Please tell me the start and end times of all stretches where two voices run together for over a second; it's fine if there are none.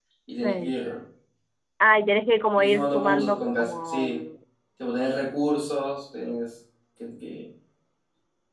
2.6-4.2

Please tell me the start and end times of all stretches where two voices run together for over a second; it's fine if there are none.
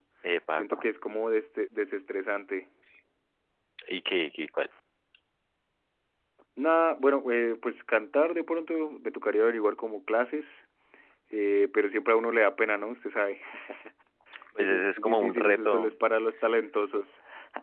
14.6-15.9

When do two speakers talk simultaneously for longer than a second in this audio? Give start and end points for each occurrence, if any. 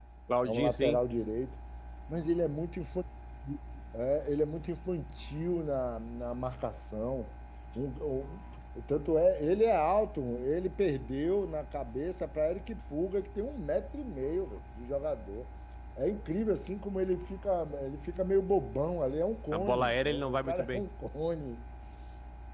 19.6-20.8

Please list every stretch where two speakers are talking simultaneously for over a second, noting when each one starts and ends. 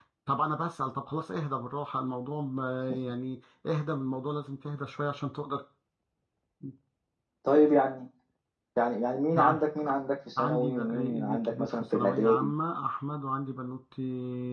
10.4-12.5

